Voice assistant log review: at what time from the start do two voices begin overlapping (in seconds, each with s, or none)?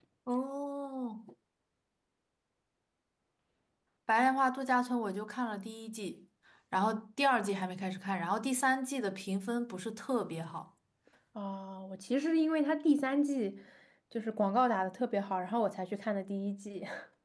none